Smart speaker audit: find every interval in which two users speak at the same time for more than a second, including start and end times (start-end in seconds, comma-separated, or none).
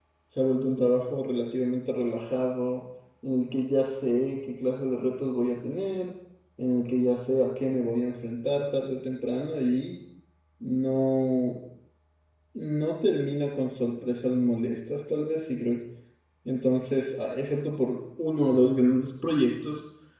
none